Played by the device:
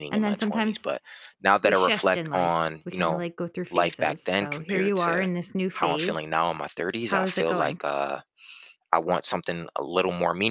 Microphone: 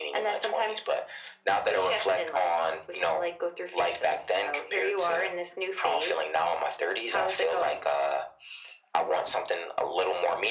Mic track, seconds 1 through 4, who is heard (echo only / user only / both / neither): echo only